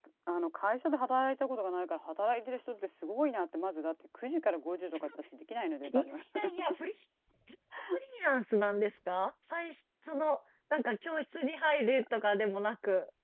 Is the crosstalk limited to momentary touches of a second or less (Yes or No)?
Yes